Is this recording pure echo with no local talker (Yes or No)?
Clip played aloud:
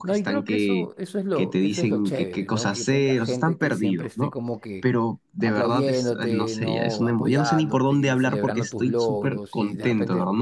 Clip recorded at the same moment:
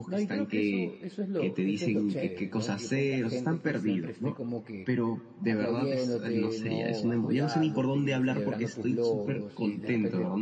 Yes